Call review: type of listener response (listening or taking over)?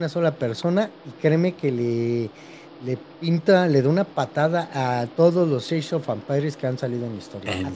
listening